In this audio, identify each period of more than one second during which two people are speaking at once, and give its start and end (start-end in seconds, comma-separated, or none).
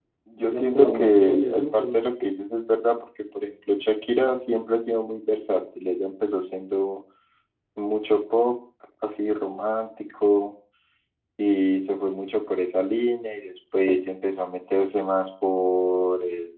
0.5-2.1